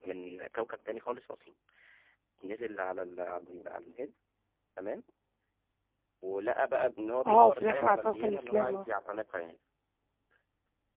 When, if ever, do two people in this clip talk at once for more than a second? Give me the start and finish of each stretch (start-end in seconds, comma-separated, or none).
7.2-8.8